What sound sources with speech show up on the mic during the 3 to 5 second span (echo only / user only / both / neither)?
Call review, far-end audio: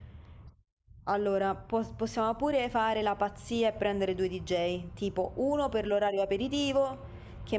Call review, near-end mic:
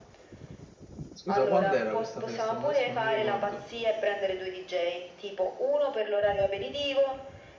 both